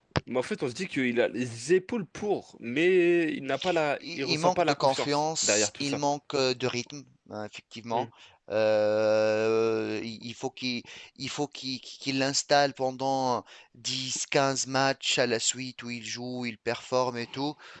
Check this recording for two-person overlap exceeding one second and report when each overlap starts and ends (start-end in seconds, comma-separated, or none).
4.0-6.0